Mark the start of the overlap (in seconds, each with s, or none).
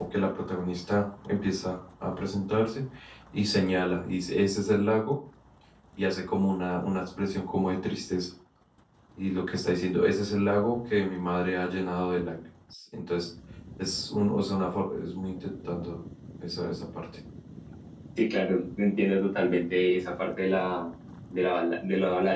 none